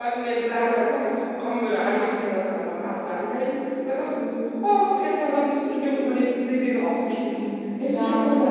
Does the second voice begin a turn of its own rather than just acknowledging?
No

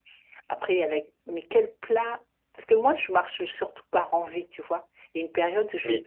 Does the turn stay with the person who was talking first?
Yes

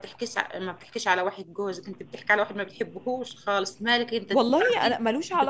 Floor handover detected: Yes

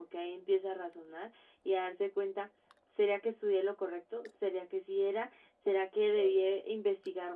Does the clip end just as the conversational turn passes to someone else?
No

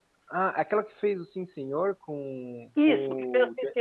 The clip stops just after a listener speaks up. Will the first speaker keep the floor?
No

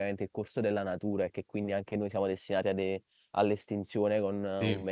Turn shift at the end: No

